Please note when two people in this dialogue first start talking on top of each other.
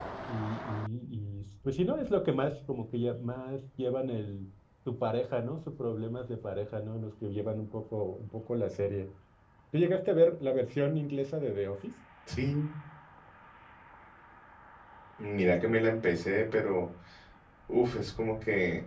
none

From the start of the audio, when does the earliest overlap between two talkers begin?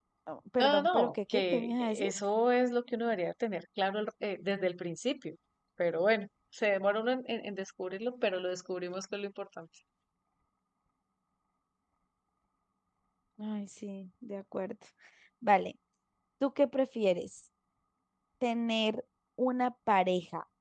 0.6 s

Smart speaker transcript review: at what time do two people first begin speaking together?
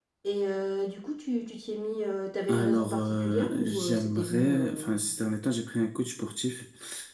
2.5 s

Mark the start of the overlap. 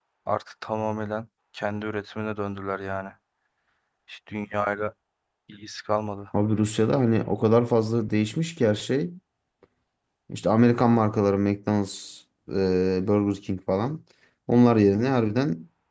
none

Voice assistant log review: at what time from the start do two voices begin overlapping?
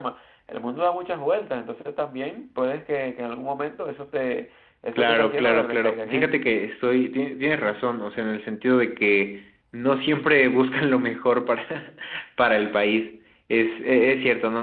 4.9 s

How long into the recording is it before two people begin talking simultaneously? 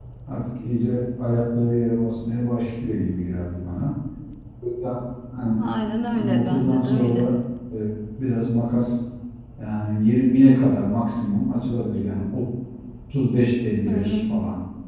6.1 s

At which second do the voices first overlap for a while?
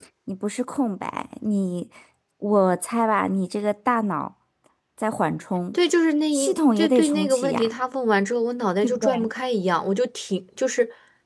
6.3 s

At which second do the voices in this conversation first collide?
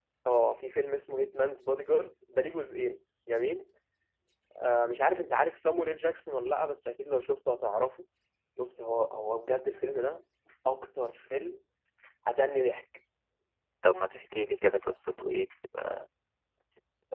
none

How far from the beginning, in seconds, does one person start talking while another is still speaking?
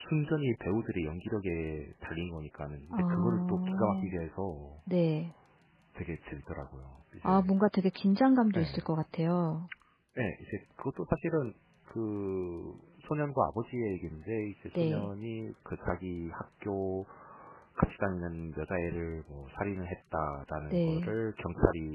2.9 s

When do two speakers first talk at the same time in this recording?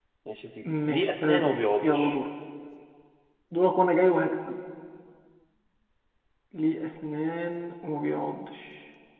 0.6 s

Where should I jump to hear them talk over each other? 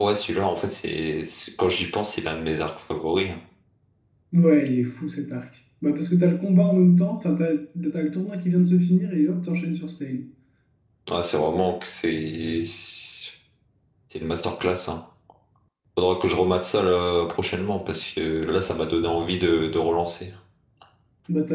none

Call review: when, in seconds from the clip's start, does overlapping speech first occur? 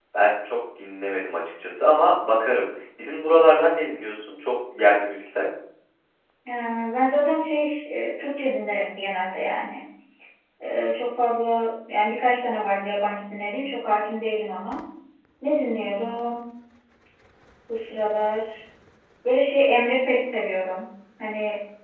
none

